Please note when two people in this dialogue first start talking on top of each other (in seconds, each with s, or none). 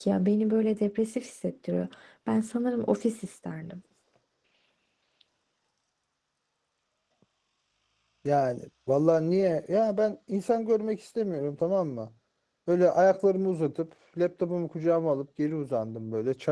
none